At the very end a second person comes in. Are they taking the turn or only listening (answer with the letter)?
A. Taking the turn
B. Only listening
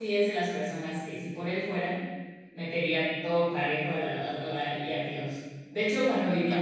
B